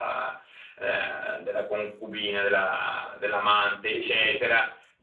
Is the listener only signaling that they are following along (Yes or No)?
Yes